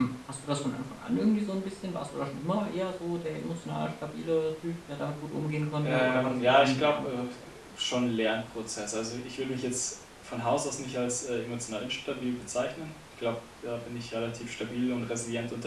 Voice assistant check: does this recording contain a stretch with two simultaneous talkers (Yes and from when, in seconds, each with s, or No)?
Yes, from 5.8 s